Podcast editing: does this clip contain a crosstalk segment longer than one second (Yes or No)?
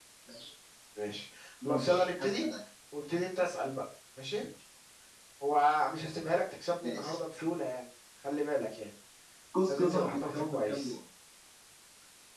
Yes